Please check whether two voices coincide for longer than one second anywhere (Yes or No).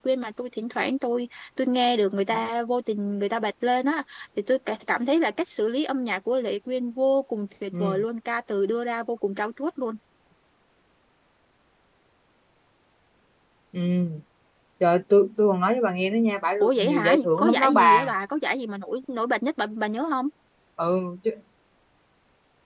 Yes